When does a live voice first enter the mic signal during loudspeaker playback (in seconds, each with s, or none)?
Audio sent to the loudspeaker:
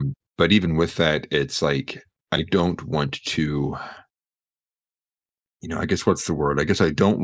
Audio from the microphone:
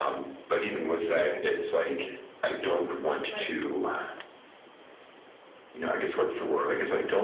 3.3 s